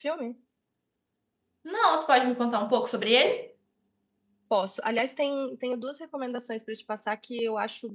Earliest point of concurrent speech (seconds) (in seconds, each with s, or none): none